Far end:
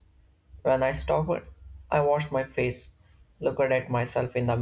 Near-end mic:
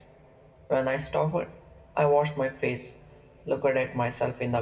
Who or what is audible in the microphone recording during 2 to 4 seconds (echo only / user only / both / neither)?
echo only